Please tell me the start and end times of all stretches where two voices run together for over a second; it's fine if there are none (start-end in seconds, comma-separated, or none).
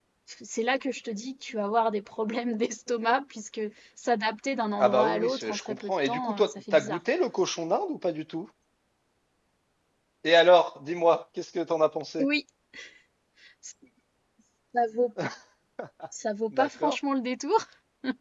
4.8-7.0